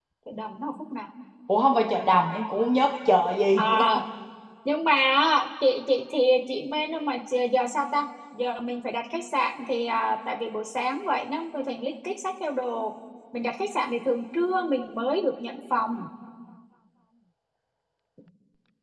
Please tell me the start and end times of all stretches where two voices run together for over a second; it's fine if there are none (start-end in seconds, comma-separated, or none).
none